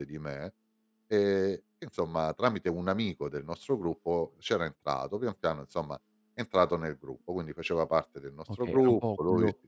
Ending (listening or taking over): taking over